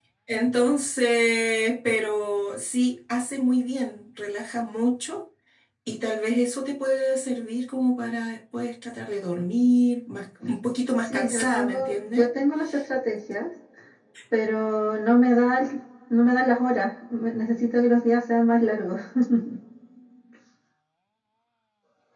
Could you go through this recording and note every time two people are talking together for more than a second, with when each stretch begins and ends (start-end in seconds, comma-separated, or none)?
11.0-12.3